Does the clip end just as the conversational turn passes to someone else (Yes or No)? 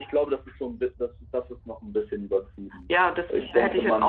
Yes